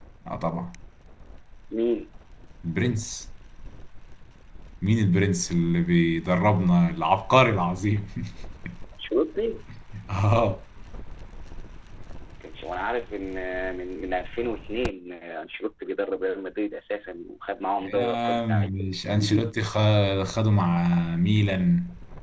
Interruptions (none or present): present